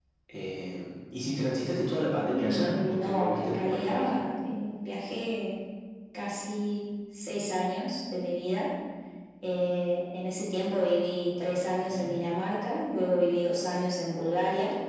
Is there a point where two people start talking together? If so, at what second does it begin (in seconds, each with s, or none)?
2.4 s